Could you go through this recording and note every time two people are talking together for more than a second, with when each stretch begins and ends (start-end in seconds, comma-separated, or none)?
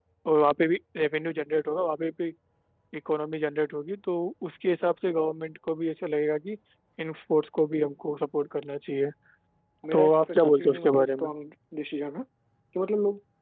9.9-11.3